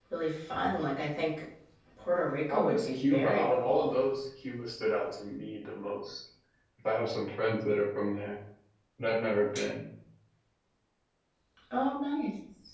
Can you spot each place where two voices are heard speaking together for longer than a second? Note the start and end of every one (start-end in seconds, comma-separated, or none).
2.5-4.0